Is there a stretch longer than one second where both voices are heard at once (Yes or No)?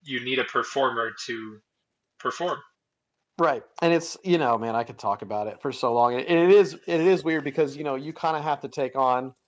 No